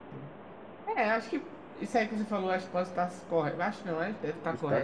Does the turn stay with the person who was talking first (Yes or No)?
Yes